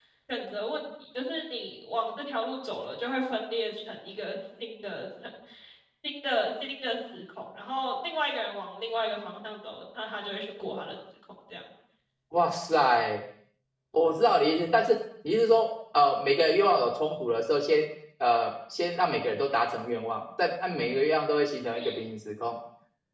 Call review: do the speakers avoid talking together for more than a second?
Yes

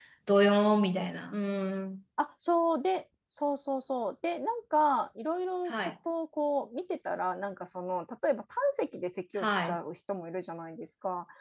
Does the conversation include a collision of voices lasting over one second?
No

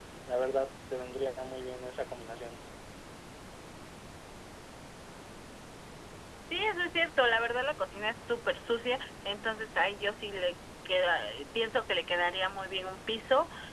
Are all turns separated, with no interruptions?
Yes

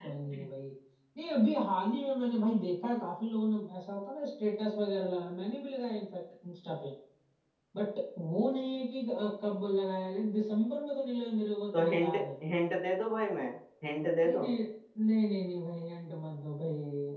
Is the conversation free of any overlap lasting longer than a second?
Yes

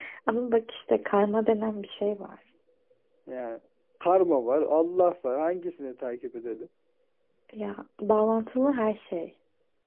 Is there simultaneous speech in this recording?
No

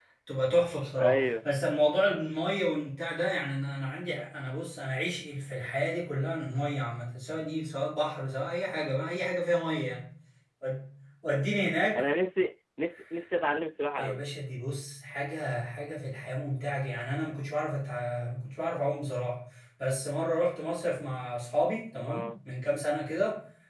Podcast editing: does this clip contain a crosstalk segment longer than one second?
No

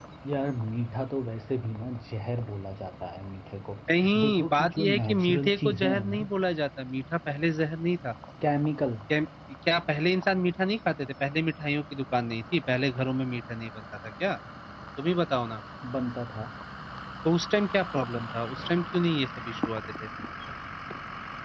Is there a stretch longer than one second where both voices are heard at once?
Yes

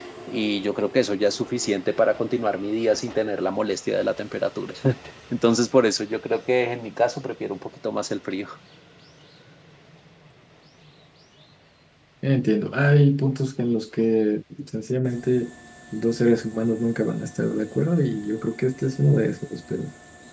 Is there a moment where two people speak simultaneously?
No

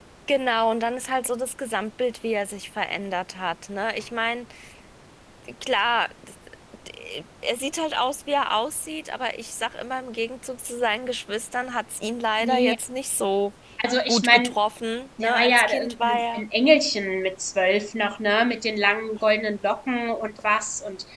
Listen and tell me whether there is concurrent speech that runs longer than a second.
Yes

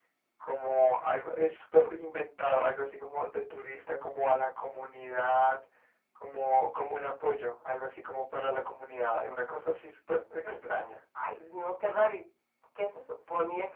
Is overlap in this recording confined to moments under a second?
Yes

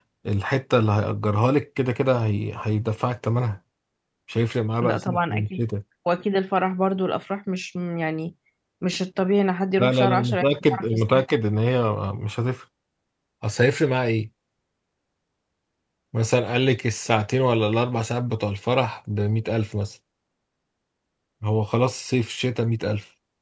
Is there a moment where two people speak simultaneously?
Yes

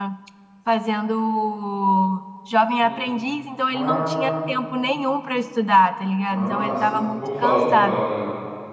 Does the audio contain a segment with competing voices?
Yes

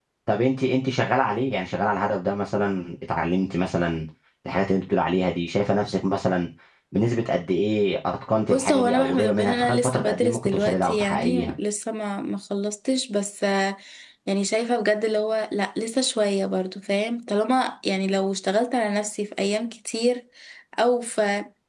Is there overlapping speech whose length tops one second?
Yes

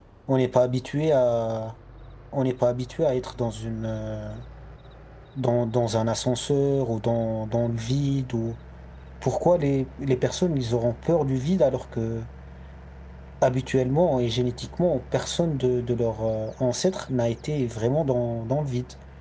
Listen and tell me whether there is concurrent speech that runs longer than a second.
No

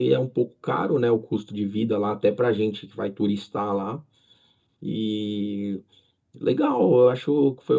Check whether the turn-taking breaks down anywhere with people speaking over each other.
No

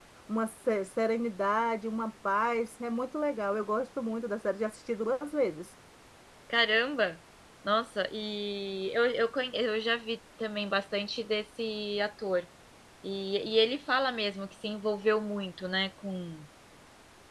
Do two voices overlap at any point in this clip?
No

